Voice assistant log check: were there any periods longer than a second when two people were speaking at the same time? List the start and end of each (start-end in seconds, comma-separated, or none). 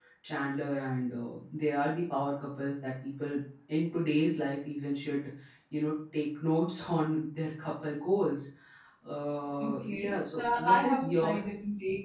9.6-11.4